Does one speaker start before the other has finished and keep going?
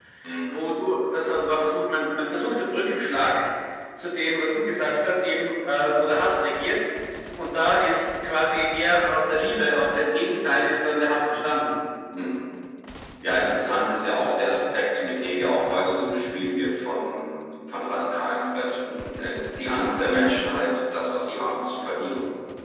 No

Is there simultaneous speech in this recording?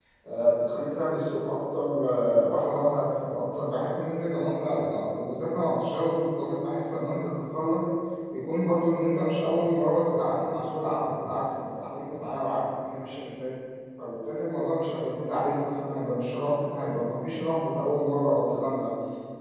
No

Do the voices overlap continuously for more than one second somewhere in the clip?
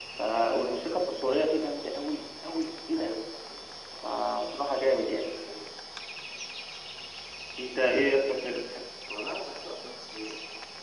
No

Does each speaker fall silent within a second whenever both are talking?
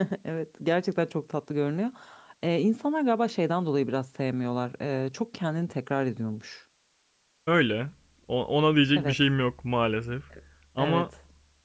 Yes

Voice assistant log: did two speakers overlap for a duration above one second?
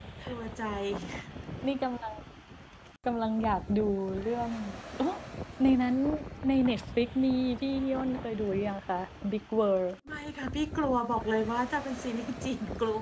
No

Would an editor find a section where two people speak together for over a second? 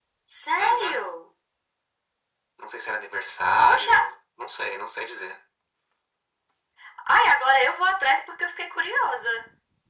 No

